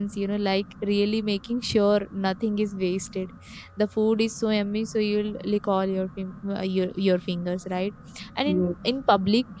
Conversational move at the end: listening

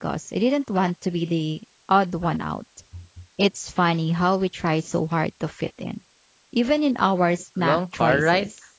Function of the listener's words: taking over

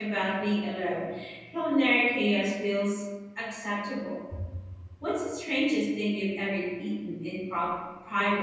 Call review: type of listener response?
taking over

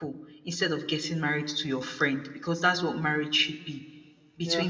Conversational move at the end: listening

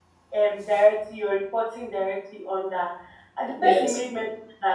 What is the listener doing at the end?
listening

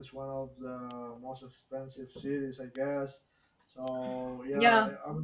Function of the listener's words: listening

